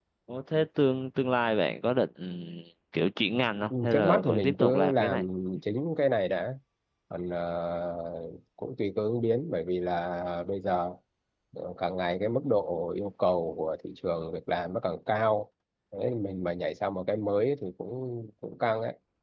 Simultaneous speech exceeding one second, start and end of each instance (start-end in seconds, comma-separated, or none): 3.7-5.2